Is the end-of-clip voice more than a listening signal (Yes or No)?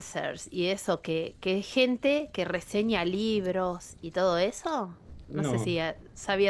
No